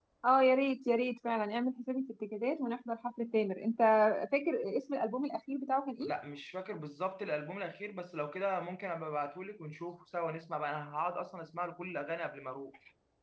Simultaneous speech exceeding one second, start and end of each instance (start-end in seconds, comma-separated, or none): none